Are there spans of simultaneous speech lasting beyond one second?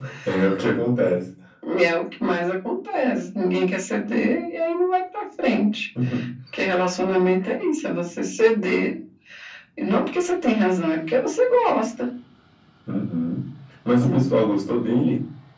No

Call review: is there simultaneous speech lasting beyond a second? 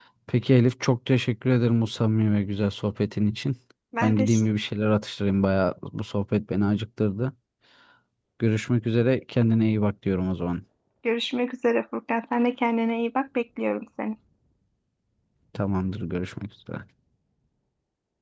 No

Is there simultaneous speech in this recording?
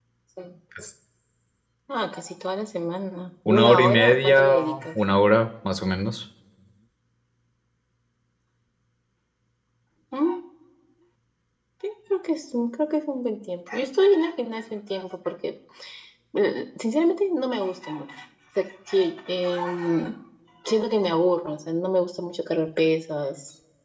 Yes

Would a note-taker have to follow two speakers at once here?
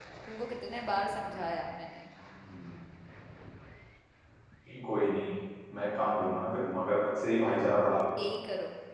No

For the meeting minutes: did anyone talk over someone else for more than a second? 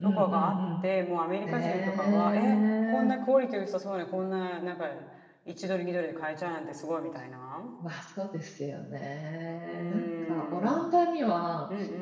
Yes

